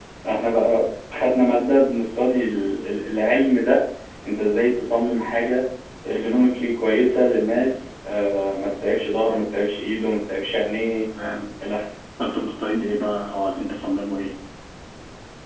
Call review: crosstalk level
none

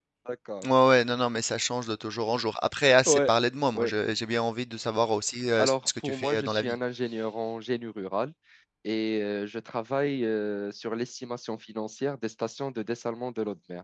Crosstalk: present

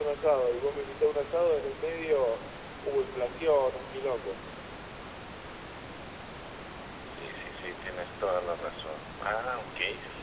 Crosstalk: none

